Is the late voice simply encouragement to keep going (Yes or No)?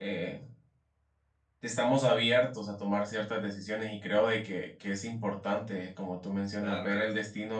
Yes